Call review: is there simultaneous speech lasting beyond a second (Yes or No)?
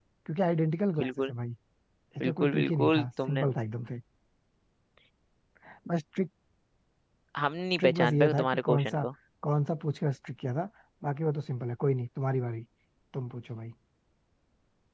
Yes